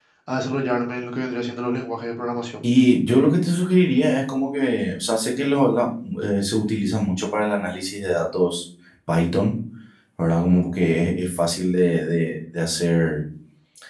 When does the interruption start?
none

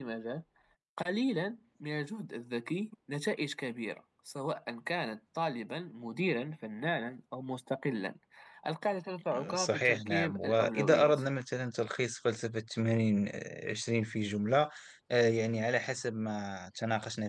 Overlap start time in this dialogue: 9.5 s

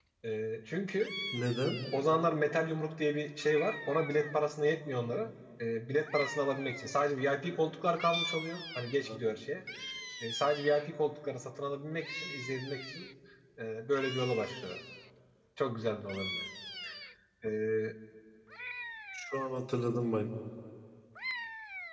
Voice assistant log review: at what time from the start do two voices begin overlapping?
none

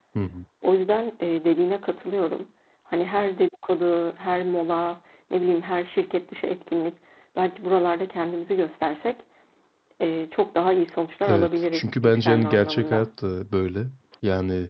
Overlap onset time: 11.2 s

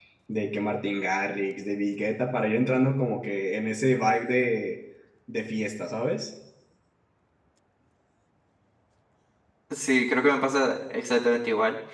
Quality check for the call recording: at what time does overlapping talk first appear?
none

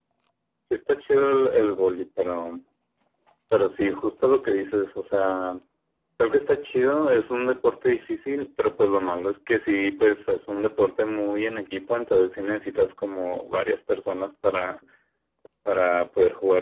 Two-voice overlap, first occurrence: none

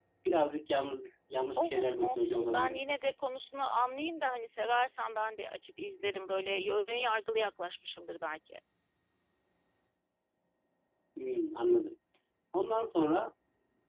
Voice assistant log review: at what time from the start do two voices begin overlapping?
1.6 s

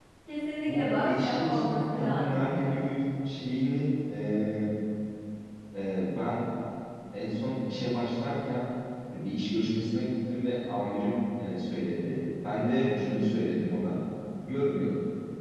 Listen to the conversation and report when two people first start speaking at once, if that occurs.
0.6 s

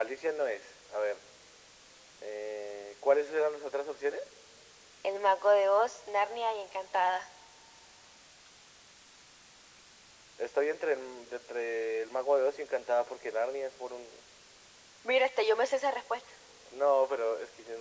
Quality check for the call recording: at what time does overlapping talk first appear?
none

